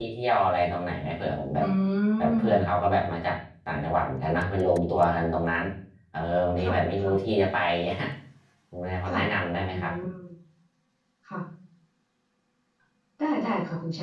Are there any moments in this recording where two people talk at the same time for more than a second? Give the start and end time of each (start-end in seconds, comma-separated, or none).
none